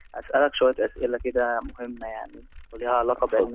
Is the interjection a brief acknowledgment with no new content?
Yes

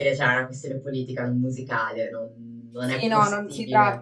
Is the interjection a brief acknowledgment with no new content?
No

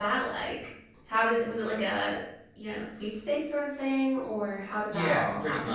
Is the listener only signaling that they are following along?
No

